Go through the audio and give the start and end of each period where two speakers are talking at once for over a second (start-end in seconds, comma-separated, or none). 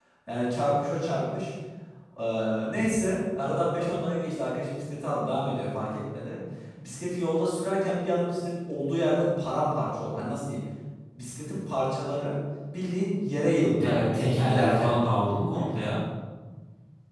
13.7-14.9